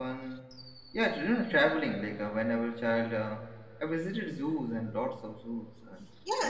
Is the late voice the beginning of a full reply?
Yes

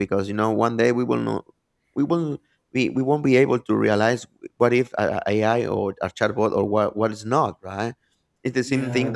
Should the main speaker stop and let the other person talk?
No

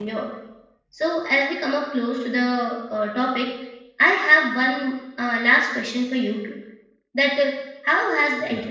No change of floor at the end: Yes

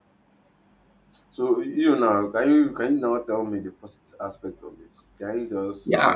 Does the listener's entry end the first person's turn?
Yes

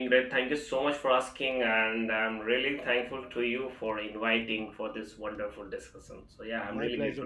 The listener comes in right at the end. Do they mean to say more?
Yes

